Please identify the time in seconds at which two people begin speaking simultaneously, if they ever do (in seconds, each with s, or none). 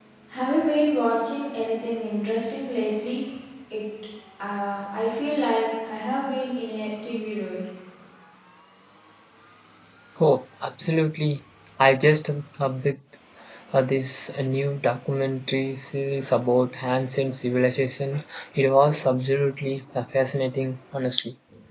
none